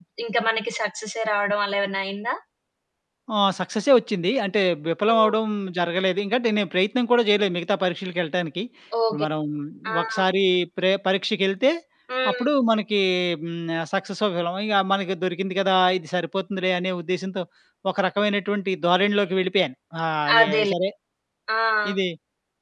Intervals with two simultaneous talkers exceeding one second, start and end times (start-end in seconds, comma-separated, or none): none